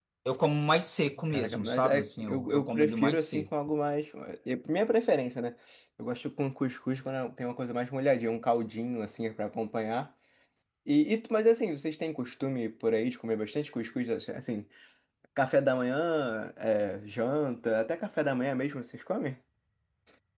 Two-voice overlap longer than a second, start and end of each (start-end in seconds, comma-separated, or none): 1.3-3.5